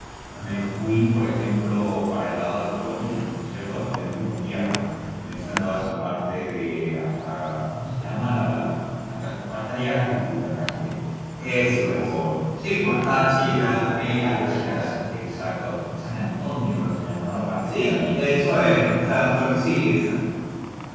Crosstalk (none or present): present